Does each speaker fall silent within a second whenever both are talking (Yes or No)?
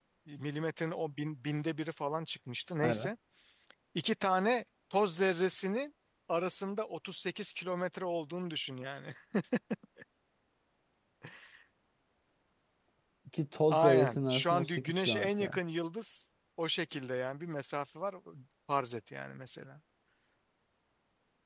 No